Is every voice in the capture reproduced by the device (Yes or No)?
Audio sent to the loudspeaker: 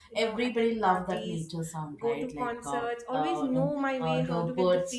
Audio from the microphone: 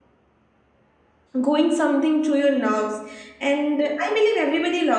No